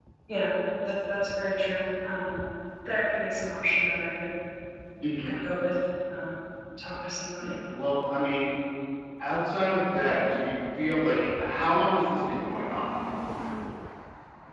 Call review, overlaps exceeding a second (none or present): none